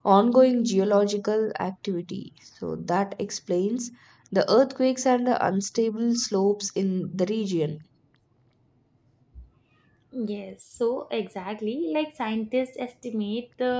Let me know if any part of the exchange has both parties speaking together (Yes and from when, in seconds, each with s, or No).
No